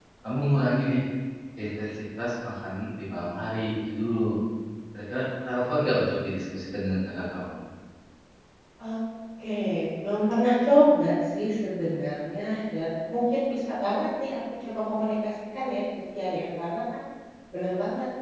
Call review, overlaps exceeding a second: none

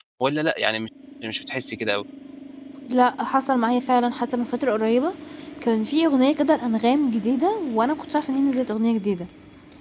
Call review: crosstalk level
none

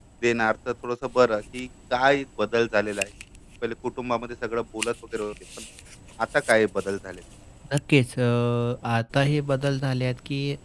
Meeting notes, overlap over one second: none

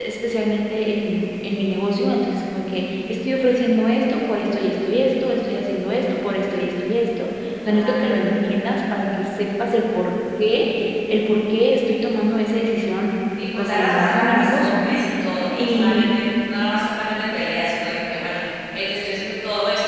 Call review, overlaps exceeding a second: present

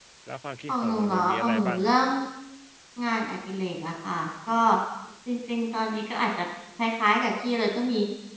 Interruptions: present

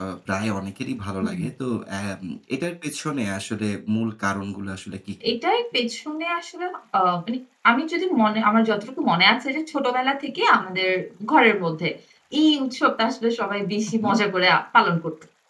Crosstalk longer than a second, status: none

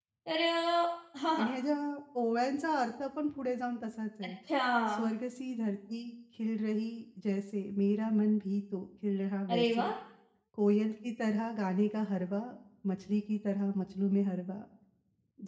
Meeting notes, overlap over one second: none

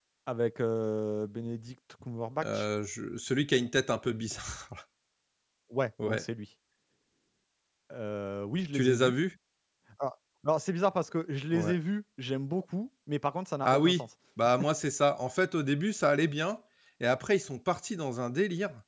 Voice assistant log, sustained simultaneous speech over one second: none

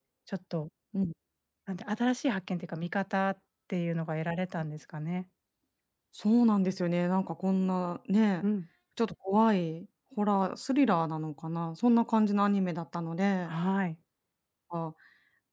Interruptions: none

